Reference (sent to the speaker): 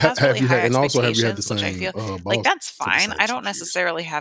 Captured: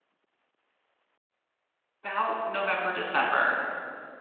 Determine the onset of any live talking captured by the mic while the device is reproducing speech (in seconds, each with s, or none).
2.0 s